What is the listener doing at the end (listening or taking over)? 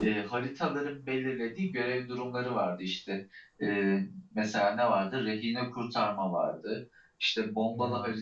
listening